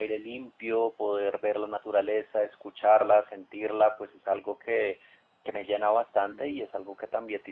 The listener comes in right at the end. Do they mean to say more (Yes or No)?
No